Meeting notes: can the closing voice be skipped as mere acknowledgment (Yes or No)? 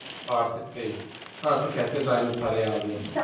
No